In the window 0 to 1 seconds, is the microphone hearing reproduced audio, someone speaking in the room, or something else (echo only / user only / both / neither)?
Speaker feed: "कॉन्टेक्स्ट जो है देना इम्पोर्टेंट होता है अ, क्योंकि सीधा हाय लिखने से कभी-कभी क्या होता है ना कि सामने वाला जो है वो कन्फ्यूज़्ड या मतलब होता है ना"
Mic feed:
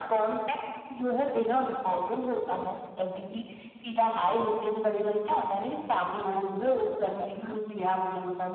echo only